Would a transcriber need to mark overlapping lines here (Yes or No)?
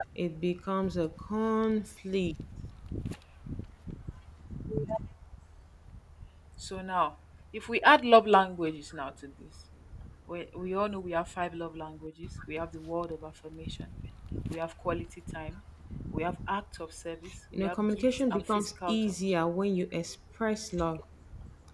Yes